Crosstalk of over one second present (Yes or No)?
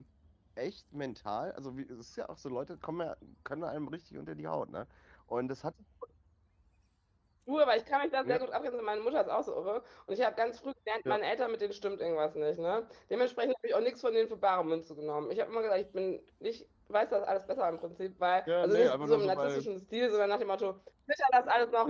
Yes